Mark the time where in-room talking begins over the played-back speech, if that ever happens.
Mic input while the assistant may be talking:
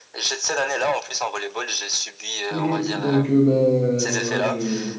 2.5 s

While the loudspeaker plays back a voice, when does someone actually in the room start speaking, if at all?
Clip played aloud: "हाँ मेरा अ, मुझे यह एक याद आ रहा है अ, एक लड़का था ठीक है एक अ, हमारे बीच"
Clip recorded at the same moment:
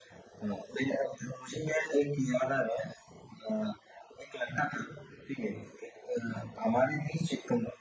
none

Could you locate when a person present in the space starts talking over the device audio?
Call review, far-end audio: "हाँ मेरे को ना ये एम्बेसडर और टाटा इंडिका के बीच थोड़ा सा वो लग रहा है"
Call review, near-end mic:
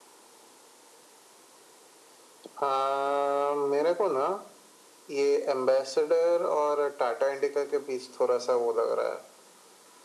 none

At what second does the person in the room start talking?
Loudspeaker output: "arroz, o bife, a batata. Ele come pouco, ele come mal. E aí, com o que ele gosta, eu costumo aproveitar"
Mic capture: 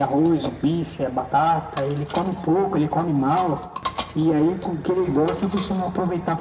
none

